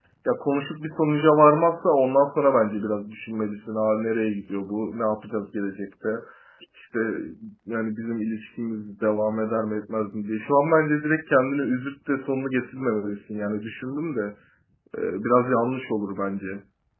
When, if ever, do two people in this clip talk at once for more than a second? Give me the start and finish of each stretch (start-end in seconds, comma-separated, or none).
none